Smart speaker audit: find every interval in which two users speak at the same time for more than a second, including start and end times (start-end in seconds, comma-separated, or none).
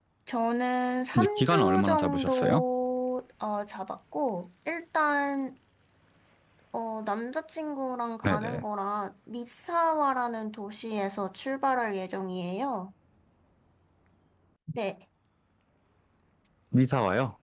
1.1-2.6